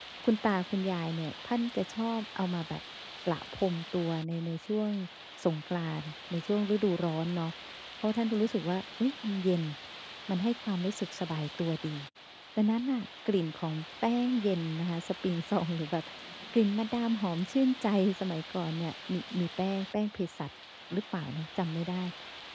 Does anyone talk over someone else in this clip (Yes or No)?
No